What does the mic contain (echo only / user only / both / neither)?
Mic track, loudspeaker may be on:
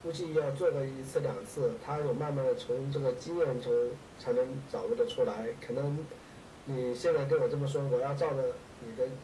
echo only